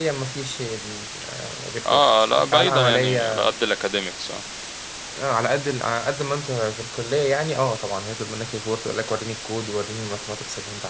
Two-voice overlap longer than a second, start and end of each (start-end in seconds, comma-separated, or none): 1.9-3.4